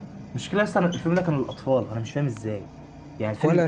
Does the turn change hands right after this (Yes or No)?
No